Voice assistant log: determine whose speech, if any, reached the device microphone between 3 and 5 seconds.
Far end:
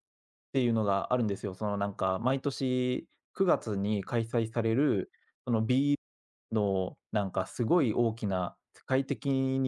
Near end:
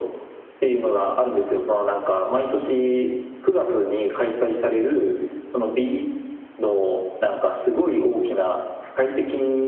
echo only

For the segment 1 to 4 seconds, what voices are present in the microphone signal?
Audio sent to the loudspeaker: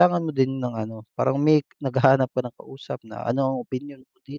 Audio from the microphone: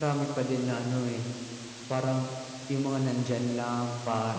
user only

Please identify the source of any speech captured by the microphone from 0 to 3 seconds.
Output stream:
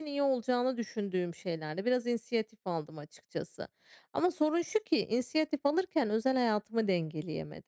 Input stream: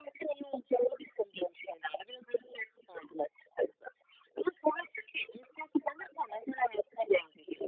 echo only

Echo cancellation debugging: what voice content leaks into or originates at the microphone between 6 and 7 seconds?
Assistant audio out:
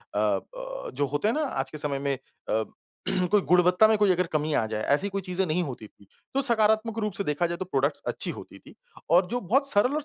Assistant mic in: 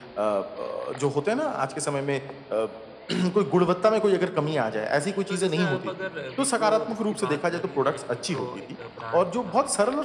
both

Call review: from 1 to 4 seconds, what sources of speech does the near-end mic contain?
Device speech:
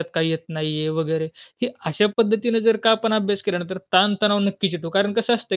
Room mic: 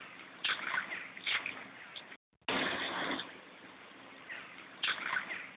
neither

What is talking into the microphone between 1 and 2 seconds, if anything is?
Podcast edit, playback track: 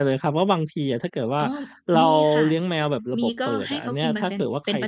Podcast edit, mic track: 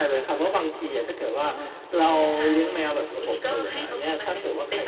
echo only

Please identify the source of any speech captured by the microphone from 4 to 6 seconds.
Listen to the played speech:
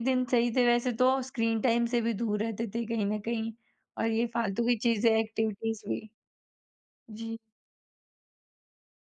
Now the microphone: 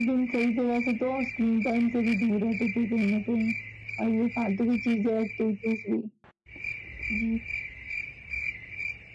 echo only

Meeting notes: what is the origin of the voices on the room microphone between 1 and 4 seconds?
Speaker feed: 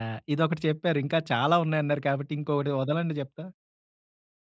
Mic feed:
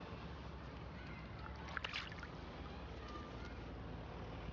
neither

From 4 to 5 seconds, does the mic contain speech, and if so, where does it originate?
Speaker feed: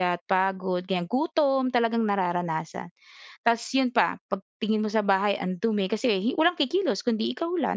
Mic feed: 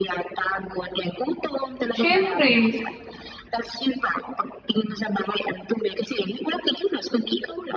echo only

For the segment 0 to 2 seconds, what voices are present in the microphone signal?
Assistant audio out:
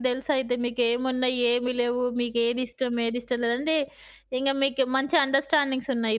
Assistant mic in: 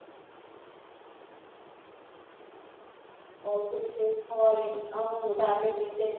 neither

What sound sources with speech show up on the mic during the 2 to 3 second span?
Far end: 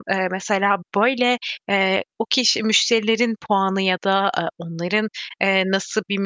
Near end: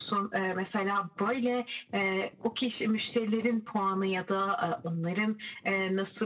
echo only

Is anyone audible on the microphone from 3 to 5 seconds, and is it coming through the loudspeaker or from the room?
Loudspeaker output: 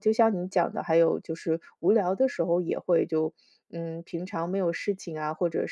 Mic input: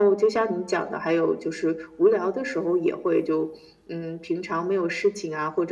echo only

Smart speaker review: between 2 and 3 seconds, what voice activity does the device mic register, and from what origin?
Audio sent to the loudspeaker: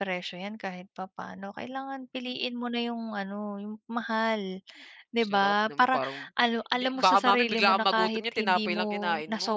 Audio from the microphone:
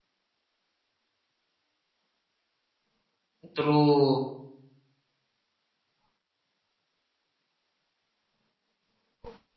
neither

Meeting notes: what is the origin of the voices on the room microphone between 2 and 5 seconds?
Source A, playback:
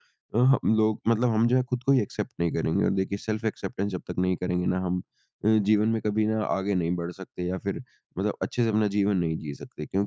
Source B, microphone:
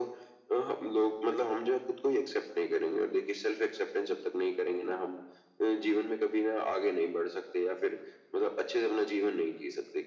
echo only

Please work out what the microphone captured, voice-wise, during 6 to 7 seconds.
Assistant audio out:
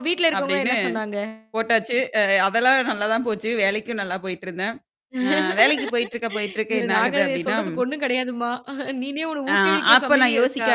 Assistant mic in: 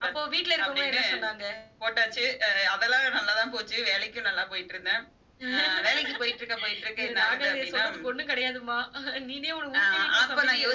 echo only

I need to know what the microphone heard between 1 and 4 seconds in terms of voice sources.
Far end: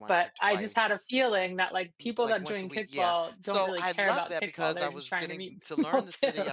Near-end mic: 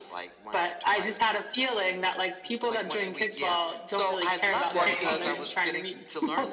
echo only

